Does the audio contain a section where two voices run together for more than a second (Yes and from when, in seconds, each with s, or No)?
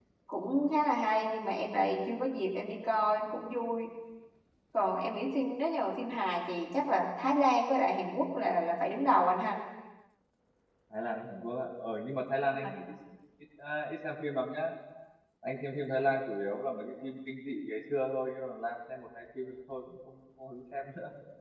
No